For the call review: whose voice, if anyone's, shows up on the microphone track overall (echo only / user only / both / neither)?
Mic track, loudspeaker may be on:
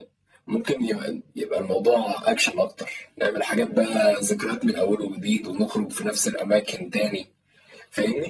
echo only